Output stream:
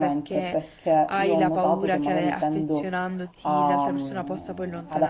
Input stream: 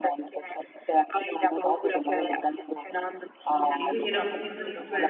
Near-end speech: present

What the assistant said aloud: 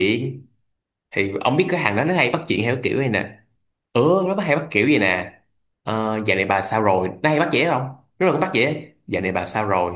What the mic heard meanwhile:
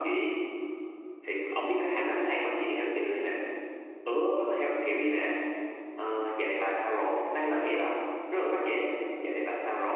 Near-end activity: none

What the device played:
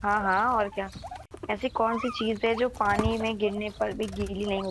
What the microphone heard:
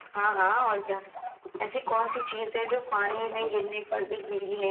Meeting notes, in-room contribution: present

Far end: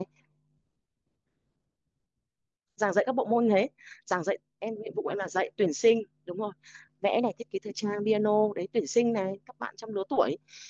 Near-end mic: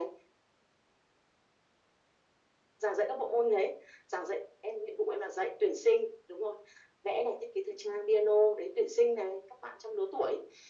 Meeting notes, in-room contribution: none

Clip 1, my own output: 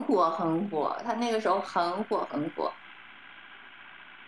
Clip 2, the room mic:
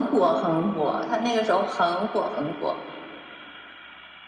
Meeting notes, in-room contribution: none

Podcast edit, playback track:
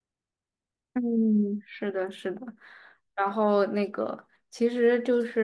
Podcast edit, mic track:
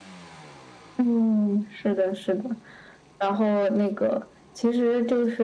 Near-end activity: none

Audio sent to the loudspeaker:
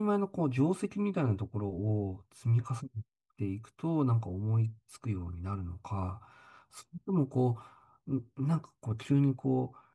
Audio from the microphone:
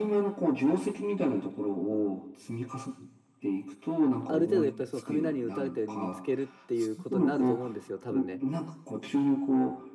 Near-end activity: present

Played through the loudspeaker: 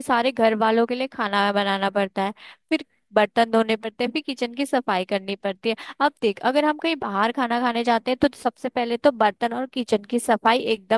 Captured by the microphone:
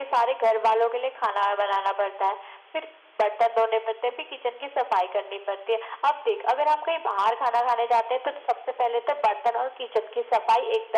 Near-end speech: none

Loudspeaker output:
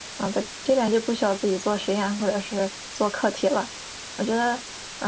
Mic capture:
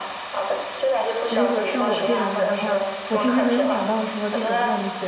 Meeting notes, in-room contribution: present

